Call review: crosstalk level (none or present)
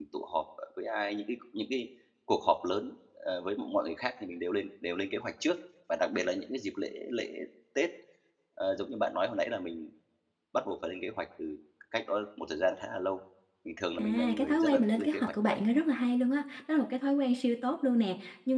present